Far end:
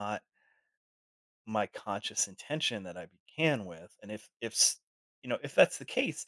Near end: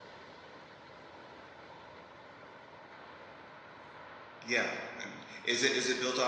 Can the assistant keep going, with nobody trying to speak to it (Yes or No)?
No